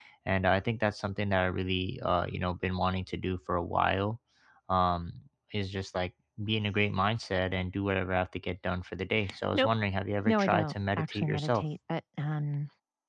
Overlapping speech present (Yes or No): Yes